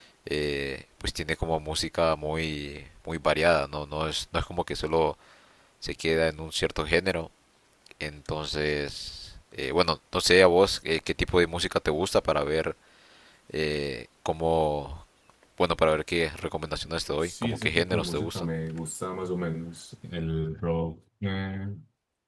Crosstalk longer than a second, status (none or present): present